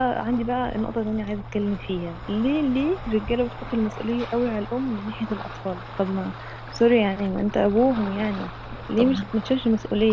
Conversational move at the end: listening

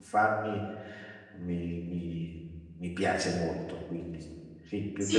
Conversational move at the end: taking over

